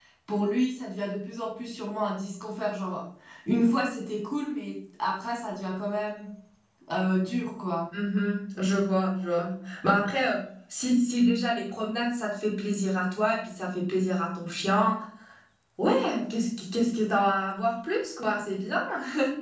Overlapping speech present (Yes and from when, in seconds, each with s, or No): No